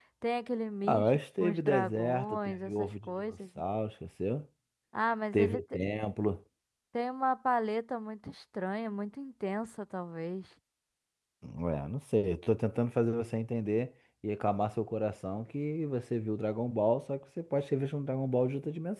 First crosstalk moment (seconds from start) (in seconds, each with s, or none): 0.9 s